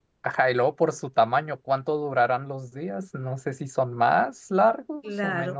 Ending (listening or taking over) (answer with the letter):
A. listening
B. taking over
A